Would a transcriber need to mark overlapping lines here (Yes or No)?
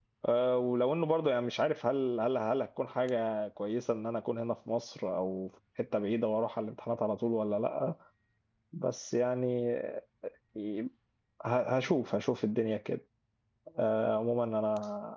No